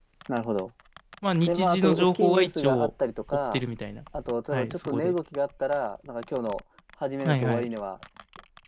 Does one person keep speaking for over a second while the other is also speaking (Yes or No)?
Yes